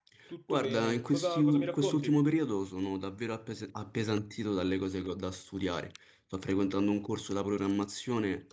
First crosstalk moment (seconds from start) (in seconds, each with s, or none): 0.5 s